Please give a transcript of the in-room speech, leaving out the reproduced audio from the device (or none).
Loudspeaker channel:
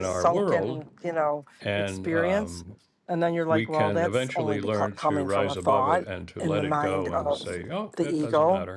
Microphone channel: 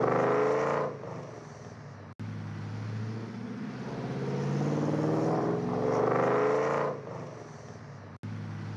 none